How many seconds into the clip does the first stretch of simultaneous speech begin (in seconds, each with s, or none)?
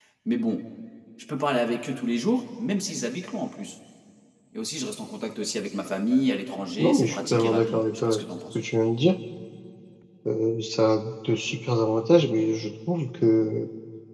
6.8 s